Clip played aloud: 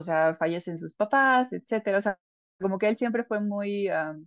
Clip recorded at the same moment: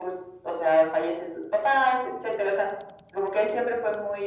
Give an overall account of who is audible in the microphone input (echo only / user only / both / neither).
echo only